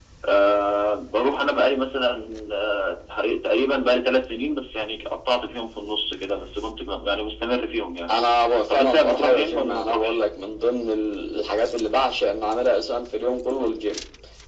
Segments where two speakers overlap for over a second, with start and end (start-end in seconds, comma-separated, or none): 8.7-10.2